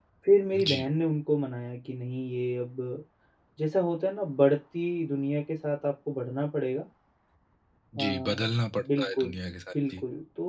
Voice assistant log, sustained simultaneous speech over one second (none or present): none